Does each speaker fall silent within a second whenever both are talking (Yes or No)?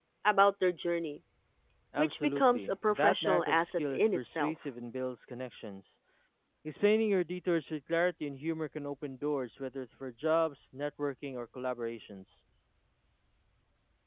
No